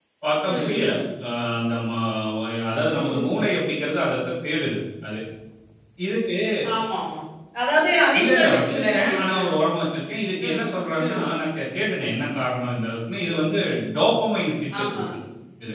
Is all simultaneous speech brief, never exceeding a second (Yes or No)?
No